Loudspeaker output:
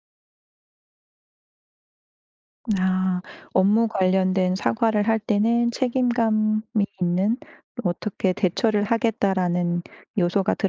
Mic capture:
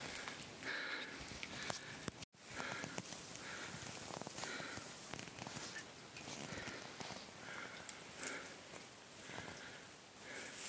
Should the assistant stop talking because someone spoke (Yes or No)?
No